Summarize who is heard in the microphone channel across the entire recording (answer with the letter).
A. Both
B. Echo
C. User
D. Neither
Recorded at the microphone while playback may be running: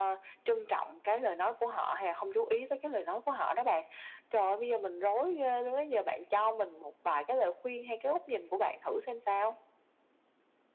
B